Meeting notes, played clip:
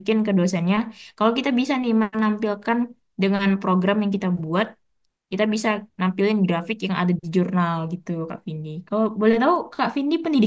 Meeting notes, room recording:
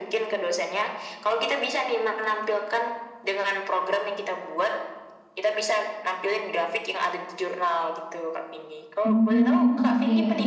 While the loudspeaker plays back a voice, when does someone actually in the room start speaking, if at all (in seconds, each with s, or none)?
9.0 s